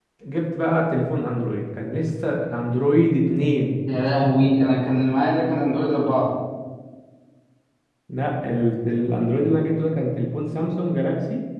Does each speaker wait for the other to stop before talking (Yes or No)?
Yes